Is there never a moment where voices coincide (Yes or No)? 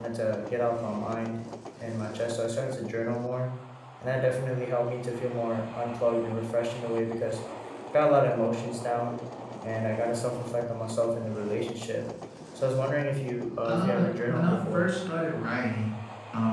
No